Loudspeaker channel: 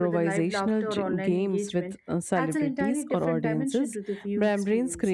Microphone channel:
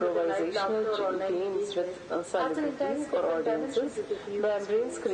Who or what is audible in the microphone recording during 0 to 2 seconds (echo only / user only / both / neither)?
echo only